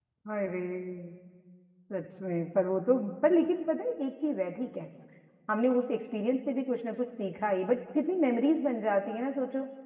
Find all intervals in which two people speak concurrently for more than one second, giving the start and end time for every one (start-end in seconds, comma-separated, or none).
none